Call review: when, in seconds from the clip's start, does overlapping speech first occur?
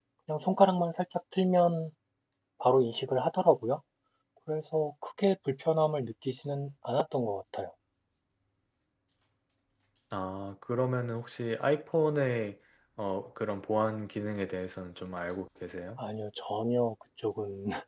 none

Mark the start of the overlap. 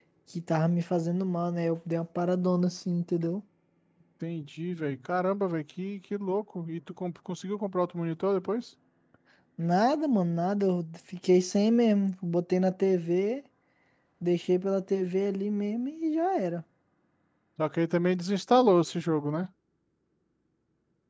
none

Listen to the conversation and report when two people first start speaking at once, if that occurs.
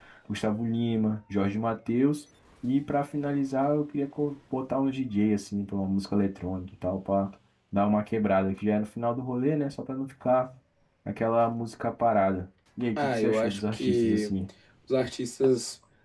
13.0 s

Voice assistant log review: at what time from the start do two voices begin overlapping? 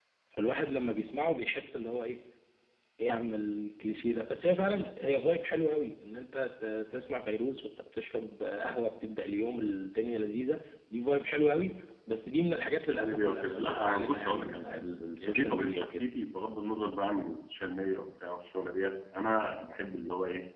12.9 s

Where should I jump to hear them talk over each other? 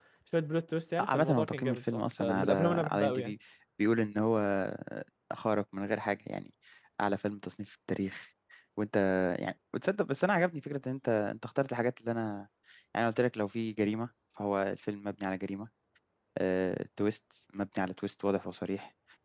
1.0 s

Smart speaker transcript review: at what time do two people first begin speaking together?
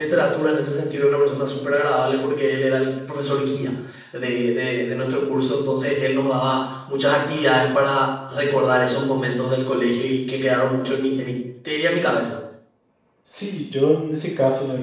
none

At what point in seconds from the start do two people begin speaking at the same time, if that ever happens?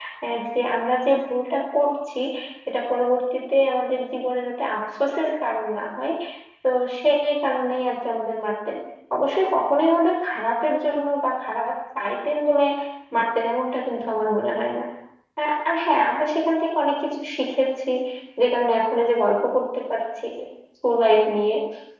none

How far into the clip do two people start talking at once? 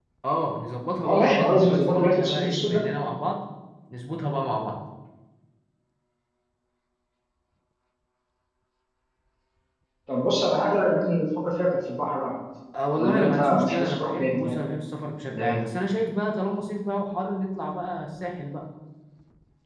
1.0 s

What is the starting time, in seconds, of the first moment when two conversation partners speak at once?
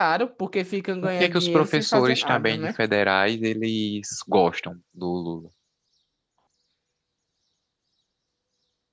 1.0 s

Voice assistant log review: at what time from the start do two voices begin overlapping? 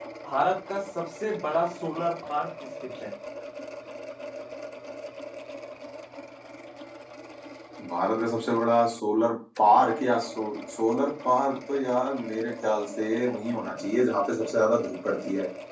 none

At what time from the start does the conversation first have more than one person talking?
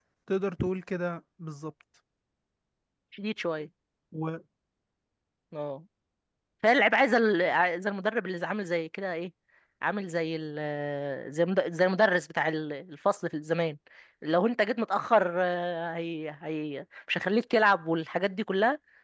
none

